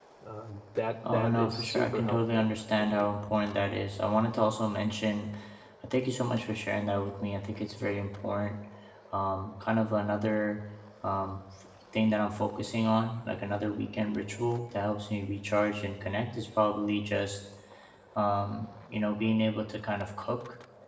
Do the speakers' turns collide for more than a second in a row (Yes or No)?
Yes